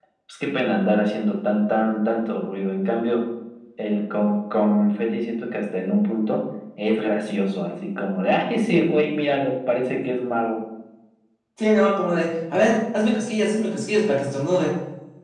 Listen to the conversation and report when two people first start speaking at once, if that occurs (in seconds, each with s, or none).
none